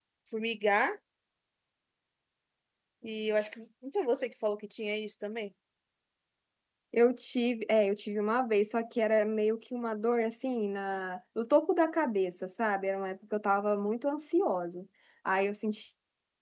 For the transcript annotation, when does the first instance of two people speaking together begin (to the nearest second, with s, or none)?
none